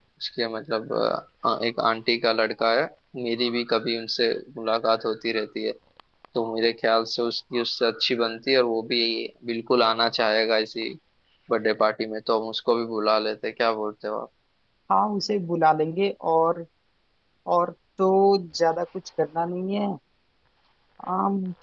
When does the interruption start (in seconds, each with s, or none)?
none